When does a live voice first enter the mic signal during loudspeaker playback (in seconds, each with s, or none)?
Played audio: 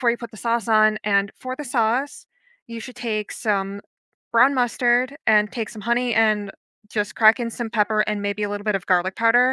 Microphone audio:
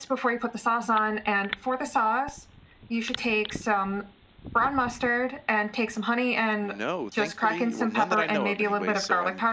6.6 s